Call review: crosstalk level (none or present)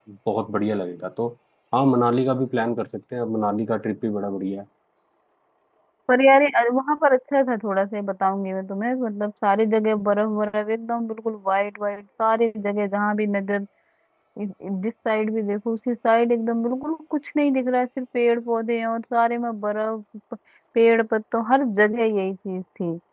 none